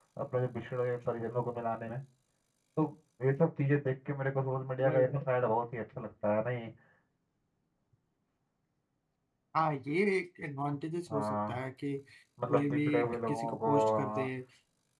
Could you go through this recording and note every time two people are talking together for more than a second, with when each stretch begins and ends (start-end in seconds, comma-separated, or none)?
12.5-14.2